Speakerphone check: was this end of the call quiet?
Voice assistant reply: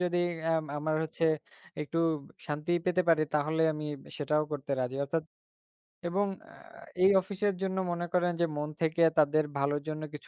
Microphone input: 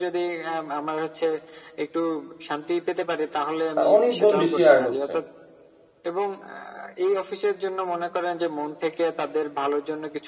No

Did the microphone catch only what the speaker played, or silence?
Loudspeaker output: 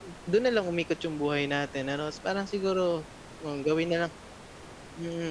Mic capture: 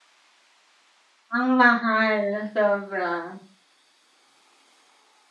No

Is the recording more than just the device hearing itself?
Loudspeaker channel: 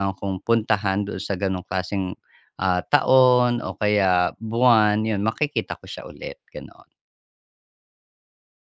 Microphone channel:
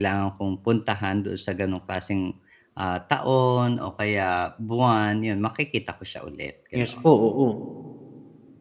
Yes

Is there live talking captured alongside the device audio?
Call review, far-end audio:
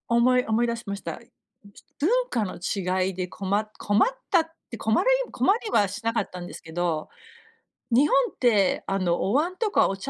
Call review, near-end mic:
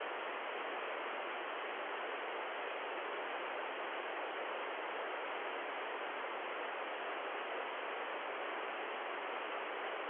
No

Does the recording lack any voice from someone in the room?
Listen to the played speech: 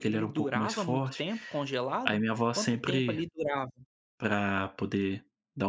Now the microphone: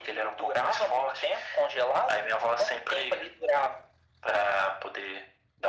Yes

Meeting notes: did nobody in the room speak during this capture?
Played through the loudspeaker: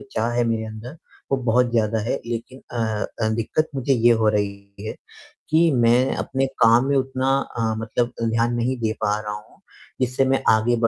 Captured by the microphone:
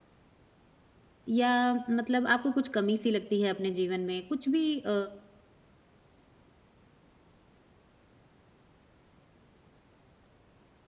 No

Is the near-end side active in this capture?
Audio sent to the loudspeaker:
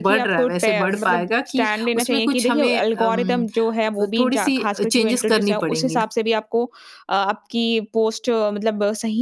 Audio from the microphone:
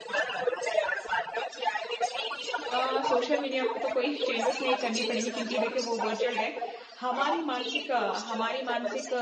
Yes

